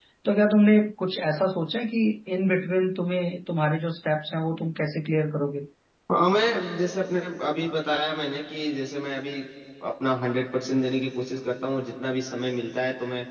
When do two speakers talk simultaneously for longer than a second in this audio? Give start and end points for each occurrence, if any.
none

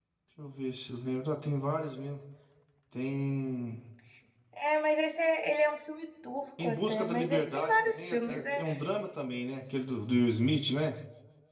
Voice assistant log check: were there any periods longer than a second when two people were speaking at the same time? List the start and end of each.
6.6-8.6

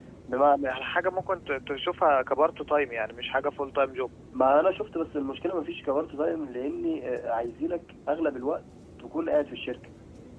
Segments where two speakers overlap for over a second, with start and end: none

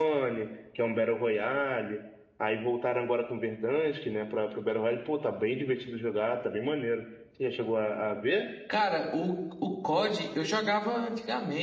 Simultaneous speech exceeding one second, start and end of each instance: none

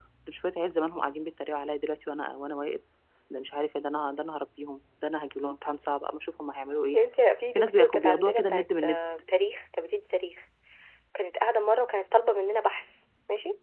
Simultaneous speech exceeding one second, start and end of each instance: 7.5-9.0

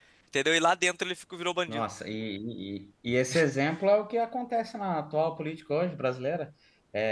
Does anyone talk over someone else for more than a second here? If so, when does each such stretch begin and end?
none

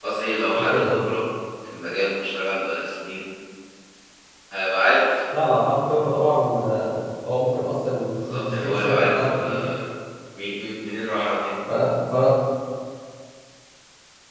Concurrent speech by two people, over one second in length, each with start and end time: 8.3-9.6

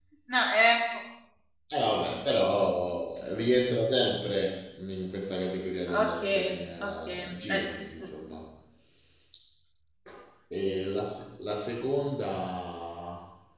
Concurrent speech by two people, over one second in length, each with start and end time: 5.9-8.1

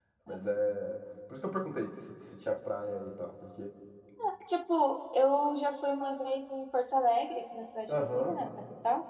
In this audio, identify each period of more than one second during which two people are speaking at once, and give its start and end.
none

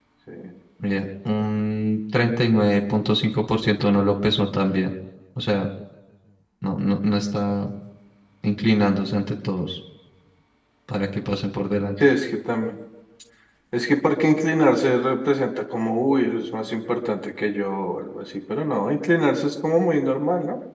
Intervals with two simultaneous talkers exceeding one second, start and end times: none

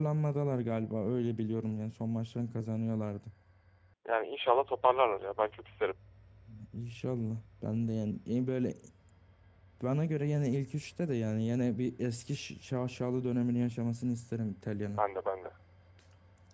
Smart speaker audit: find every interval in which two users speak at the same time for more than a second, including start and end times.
none

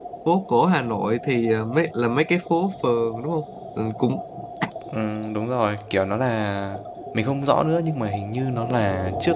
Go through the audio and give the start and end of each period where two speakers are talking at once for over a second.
none

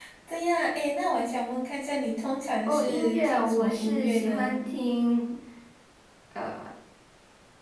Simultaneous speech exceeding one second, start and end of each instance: 2.7-4.6

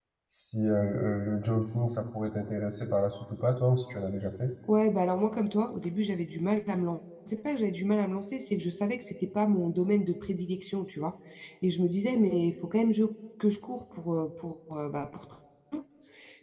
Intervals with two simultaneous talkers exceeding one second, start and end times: none

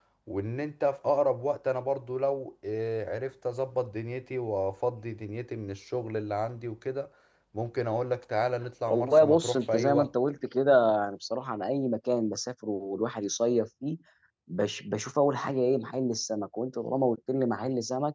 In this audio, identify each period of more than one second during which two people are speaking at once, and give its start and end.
8.9-10.1

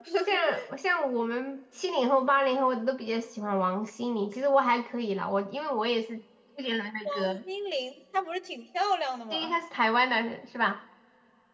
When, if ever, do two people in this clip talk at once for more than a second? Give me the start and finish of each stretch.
none

